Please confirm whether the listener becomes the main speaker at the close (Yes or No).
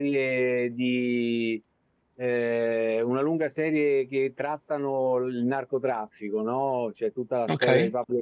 No